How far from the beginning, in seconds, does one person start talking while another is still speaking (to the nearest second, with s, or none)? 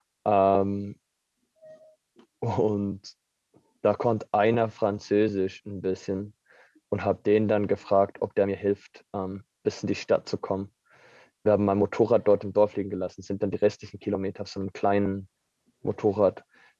none